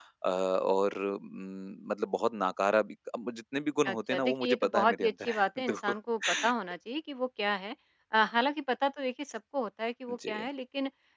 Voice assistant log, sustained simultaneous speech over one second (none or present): present